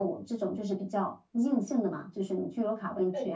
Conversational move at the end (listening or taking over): listening